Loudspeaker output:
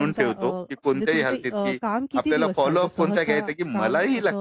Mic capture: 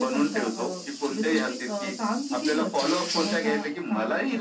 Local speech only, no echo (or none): none